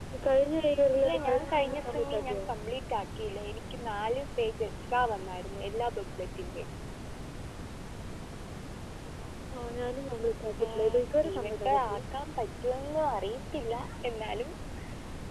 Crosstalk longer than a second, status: present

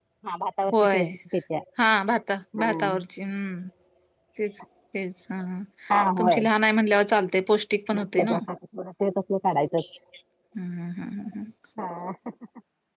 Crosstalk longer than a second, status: none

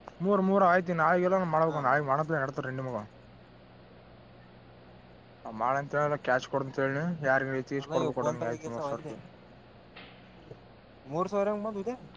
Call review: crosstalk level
present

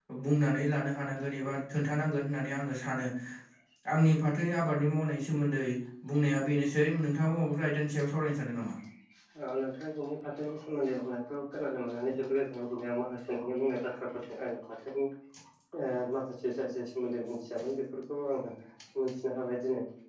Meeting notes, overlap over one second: none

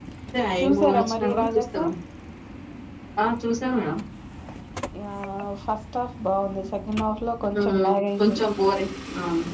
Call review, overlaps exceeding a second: present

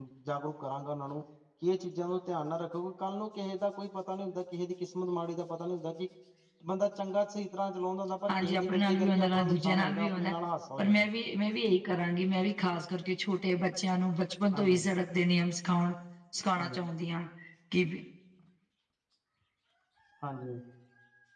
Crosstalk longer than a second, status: present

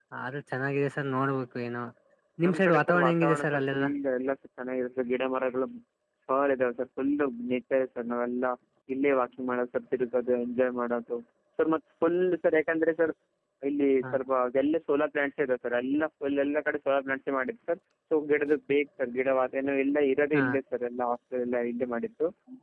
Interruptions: present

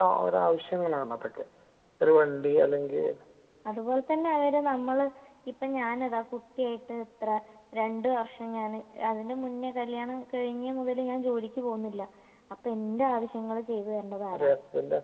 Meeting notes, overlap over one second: none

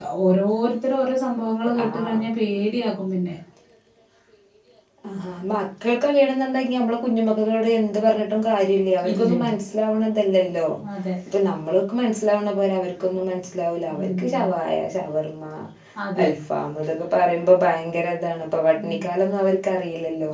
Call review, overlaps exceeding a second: none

